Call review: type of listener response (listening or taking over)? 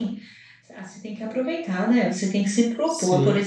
listening